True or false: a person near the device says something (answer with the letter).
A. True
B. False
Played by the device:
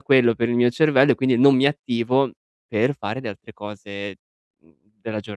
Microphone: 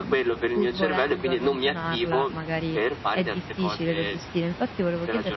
A